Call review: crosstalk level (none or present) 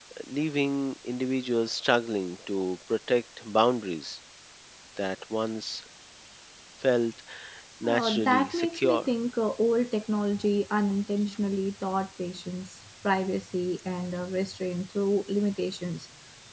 present